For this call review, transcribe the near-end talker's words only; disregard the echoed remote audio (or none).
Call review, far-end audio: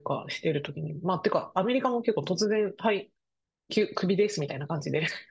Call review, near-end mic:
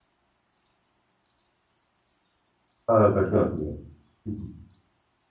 ああ、書きますね。うん